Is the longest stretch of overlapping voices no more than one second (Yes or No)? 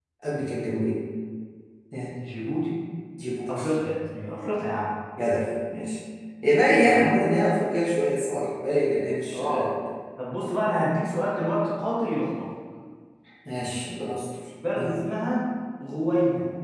Yes